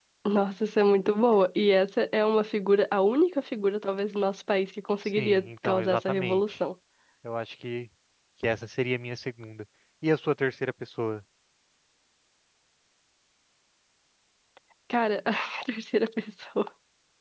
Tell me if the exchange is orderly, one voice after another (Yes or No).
No